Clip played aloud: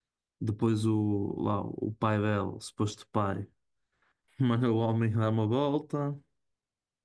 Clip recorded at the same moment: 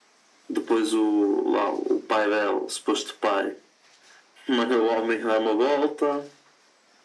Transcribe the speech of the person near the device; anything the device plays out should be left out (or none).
none